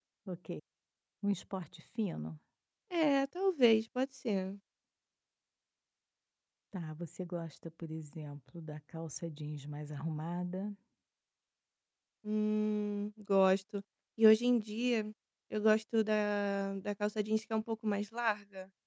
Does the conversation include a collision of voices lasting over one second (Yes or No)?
No